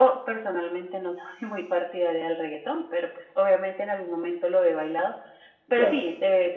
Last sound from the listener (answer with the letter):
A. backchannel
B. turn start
A